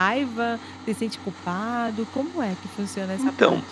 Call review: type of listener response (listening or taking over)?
taking over